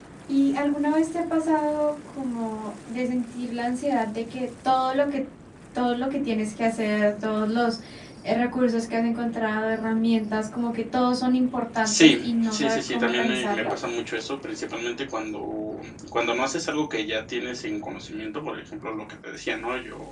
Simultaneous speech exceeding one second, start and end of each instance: 11.8-13.7

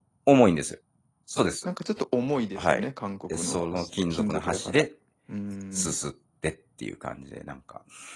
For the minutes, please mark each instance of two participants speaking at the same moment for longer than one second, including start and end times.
3.3-4.8

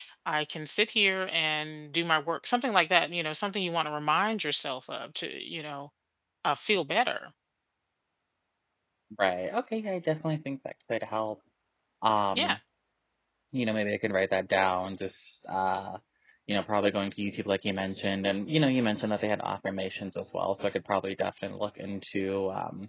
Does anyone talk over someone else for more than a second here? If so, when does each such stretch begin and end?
none

